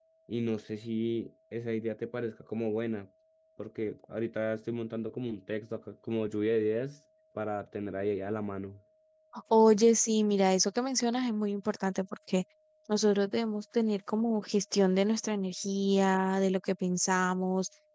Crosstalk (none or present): none